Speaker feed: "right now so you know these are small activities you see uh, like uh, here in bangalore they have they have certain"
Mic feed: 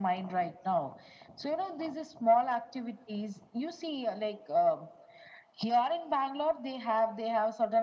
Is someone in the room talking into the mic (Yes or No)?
No